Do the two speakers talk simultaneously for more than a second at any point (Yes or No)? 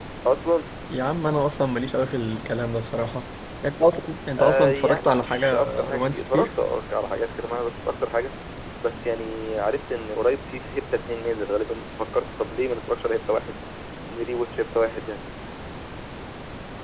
Yes